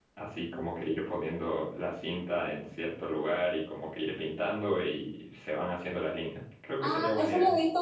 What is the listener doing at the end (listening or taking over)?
taking over